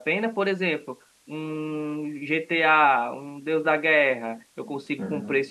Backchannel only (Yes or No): Yes